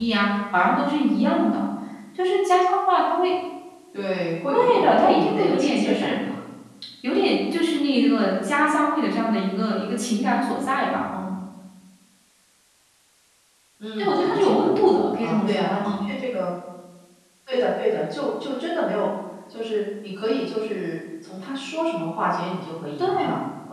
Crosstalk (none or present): present